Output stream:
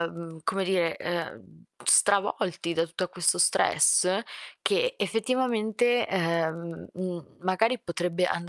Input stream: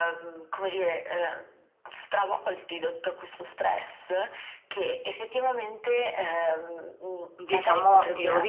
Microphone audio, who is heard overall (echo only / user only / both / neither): both